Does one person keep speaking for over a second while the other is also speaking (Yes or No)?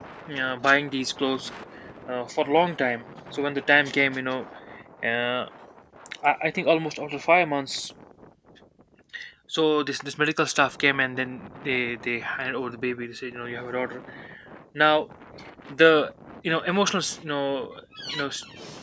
No